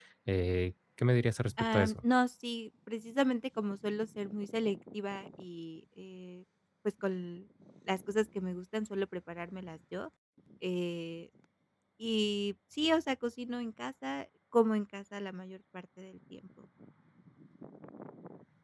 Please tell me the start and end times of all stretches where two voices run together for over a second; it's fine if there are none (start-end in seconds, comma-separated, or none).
none